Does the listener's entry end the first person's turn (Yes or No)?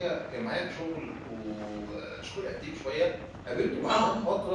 No